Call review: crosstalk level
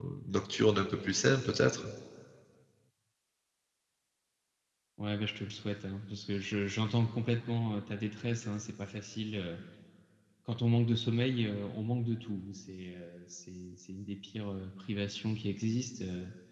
none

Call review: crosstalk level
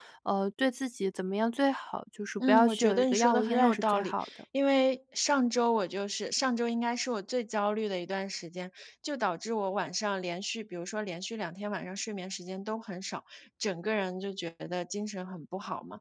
present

